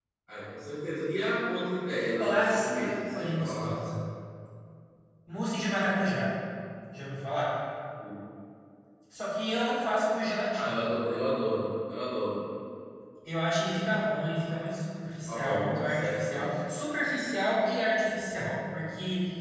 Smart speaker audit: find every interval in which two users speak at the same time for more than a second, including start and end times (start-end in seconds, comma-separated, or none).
2.2-3.7, 15.3-16.6